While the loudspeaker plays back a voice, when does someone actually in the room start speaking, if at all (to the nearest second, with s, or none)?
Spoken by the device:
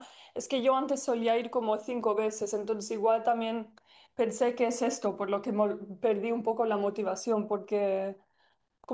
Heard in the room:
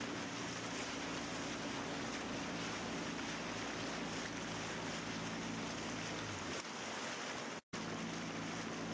none